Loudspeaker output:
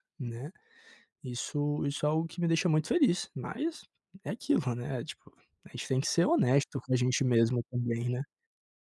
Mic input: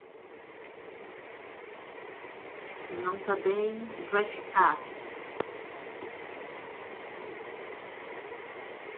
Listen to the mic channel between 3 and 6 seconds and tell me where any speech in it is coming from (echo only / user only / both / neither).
user only